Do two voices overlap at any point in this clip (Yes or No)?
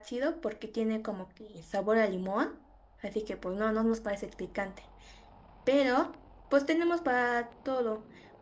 No